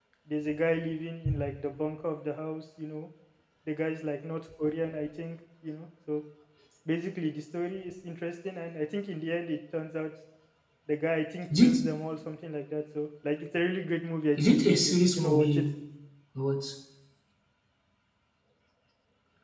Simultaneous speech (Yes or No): Yes